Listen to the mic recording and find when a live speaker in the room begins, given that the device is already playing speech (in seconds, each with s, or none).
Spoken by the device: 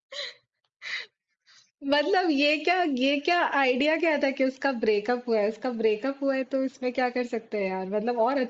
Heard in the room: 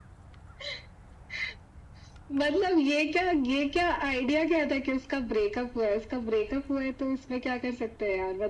none